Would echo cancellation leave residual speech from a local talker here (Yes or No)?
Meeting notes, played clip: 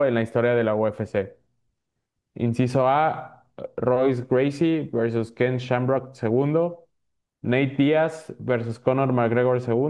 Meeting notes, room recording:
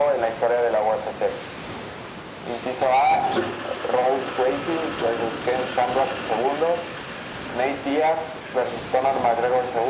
No